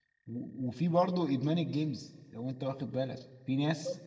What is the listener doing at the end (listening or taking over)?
listening